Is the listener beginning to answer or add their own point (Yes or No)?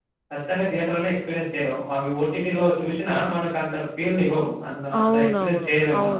Yes